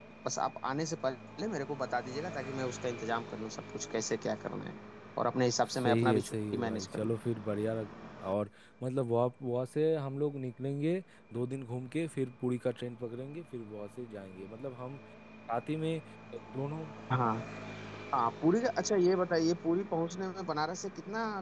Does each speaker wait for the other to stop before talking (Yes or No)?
No